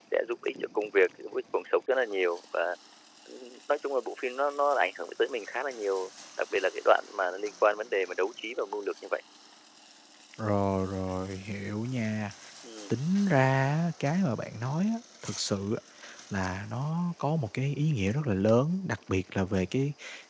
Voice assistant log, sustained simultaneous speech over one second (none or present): none